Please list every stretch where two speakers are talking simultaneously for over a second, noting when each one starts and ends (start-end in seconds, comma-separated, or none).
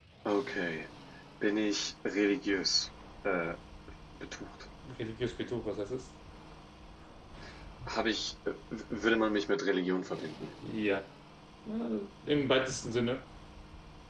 none